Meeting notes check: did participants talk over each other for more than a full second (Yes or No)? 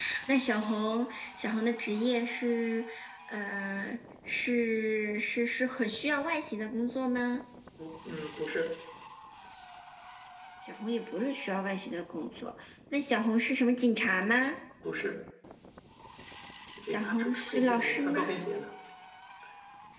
Yes